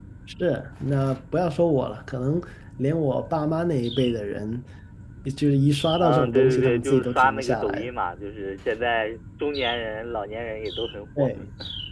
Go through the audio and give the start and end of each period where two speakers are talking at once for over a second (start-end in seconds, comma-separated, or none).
6.0-7.9